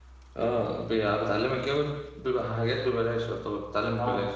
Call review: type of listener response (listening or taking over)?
taking over